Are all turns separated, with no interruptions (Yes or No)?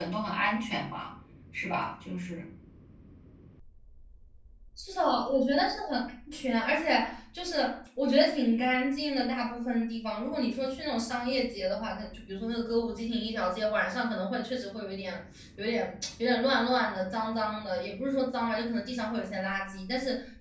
Yes